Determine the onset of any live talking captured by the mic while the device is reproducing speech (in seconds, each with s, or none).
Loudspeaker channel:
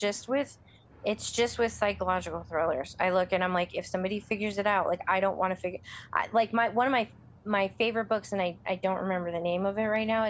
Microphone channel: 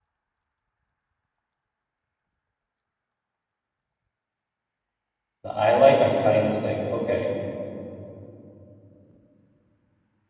5.4 s